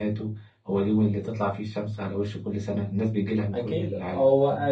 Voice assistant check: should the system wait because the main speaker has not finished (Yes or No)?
No